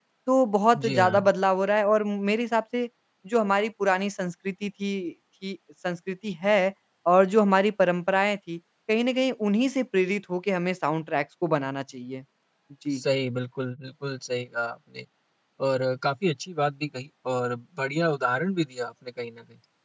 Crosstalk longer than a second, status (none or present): none